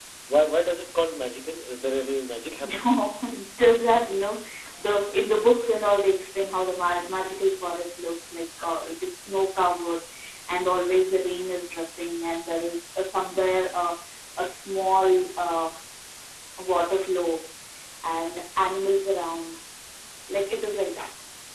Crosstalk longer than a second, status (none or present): none